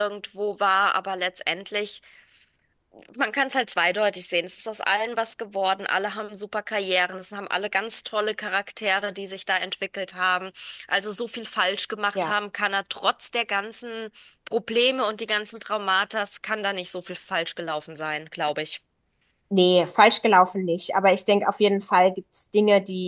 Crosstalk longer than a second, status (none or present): none